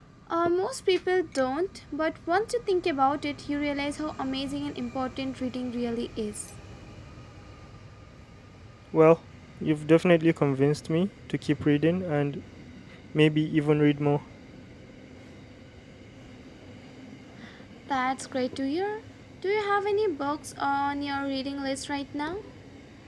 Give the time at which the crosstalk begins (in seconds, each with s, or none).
none